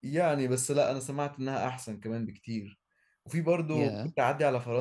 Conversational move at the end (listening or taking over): listening